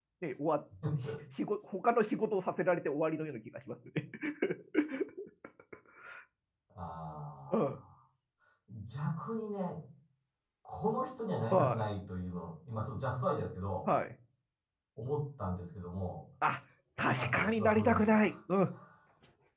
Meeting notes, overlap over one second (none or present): present